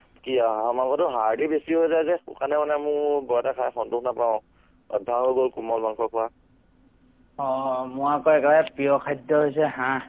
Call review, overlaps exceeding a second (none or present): none